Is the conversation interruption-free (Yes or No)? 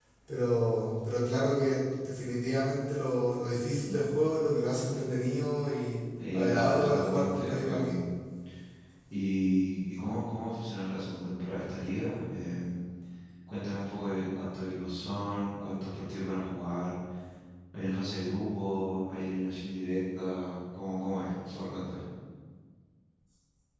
No